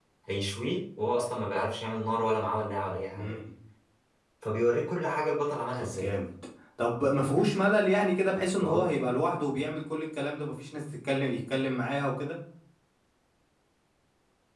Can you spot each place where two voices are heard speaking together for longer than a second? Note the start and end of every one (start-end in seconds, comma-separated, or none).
none